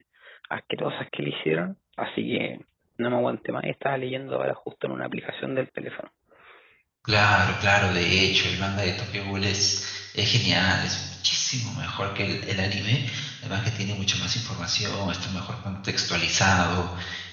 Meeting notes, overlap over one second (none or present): none